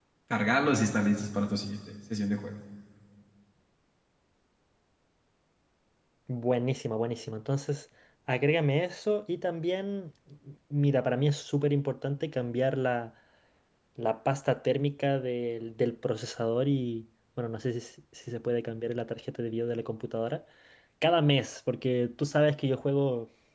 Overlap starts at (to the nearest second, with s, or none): none